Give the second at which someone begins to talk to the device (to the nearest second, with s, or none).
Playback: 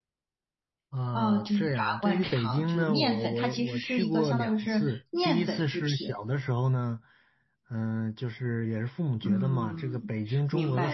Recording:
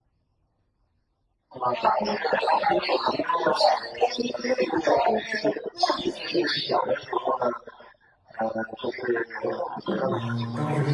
10 s